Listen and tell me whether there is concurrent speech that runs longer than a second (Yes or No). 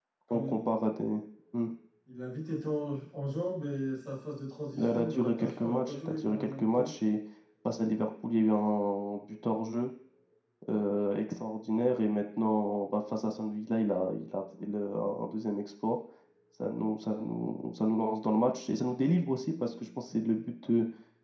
Yes